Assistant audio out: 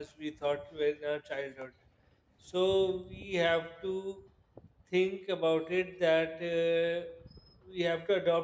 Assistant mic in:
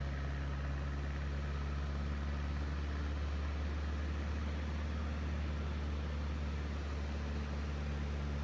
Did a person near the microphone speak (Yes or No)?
No